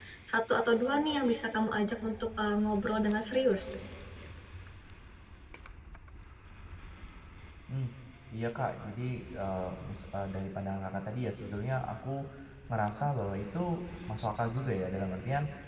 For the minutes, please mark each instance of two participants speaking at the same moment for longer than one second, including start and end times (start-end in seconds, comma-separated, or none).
none